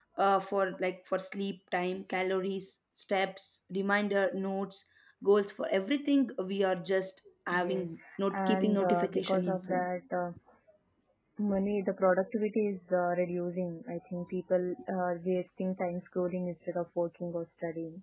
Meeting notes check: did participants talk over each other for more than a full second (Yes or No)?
Yes